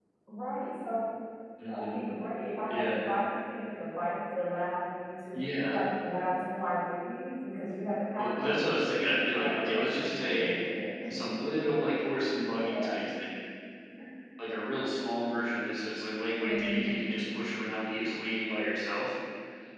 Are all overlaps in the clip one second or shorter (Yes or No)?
No